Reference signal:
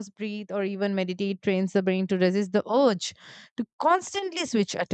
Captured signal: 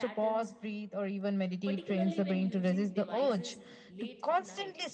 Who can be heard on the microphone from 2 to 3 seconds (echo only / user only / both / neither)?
both